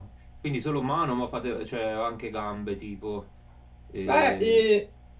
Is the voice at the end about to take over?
Yes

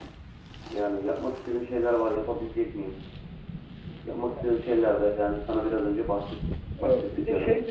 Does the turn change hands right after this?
Yes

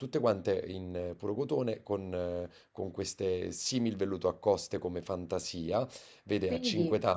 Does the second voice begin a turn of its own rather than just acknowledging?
No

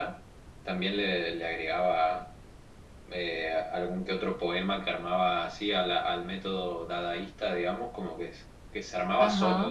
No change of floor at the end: Yes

